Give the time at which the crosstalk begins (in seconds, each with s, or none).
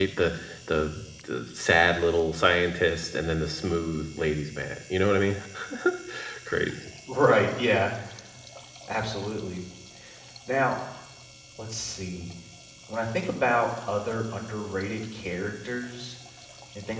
none